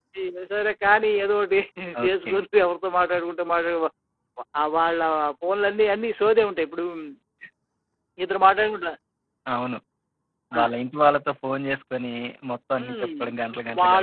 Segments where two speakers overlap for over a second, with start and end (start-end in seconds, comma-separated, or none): none